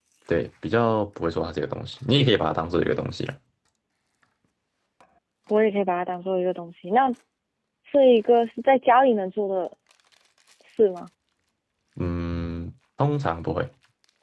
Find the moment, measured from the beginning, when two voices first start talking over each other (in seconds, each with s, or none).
none